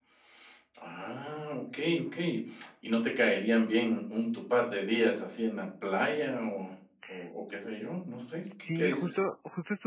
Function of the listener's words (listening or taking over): taking over